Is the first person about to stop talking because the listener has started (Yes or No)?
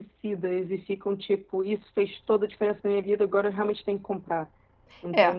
Yes